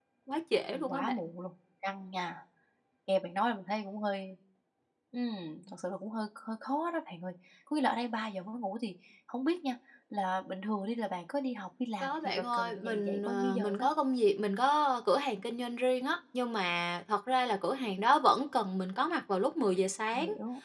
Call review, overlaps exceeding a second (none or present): present